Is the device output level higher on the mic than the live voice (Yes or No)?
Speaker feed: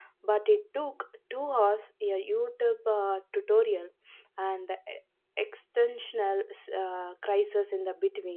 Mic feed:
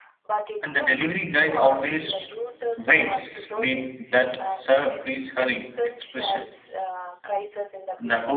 No